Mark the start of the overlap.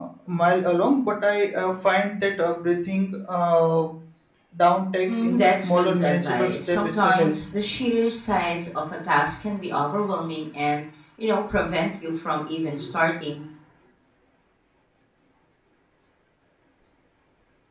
5.1 s

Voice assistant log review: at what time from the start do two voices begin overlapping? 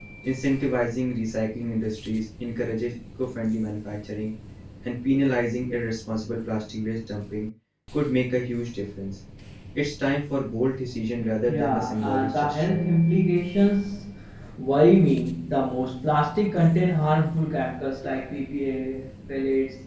11.5 s

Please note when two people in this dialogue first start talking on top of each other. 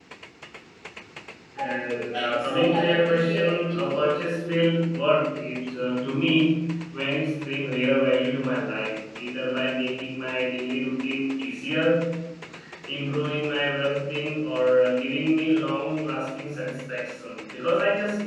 1.6 s

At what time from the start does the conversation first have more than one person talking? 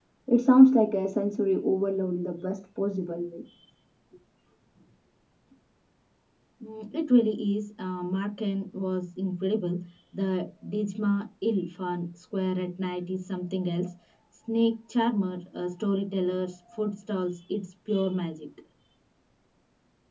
none

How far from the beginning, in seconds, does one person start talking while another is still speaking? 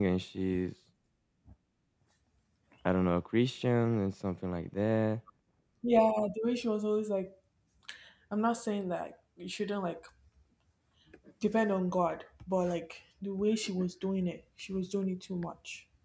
none

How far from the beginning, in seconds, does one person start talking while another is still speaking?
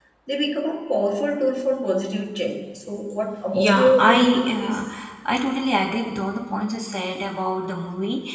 3.5 s

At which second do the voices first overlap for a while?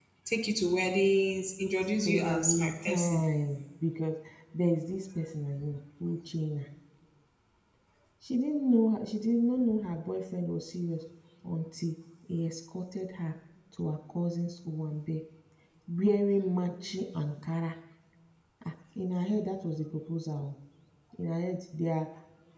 2.0 s

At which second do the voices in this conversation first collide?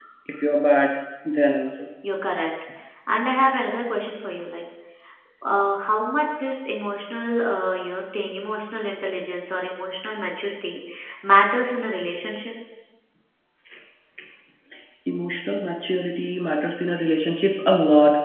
none

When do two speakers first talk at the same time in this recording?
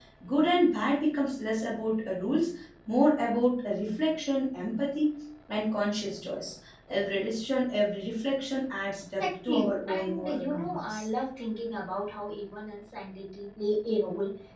9.2 s

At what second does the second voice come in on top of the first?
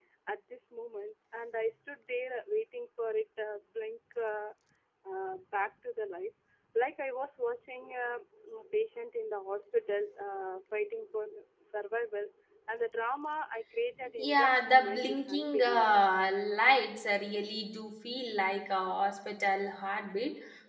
14.2 s

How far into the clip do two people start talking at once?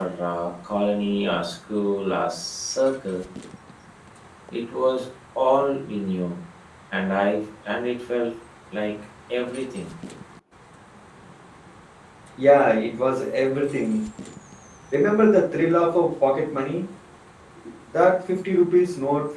none

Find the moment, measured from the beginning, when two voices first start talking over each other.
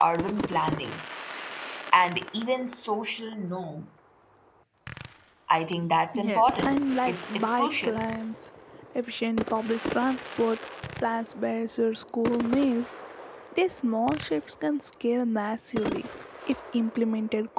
6.1 s

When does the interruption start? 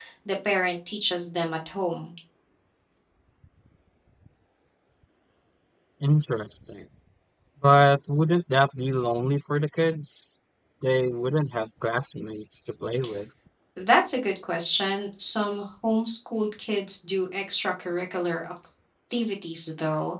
none

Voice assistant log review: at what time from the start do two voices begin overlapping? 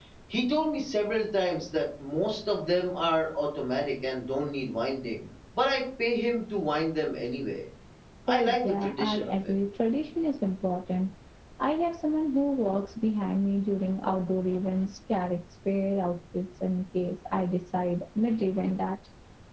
8.3 s

